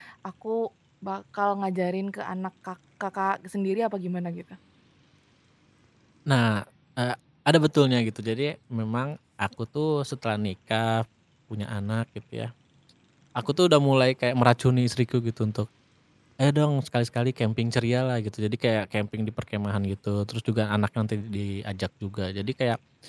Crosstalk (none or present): none